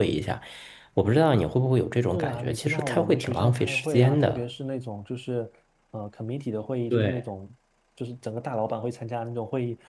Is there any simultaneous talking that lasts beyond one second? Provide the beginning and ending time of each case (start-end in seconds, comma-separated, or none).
2.1-4.5